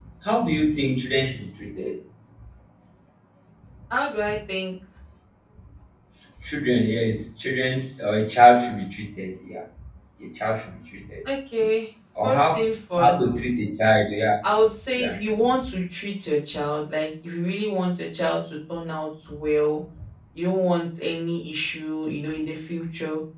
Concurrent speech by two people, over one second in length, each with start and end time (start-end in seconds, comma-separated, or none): none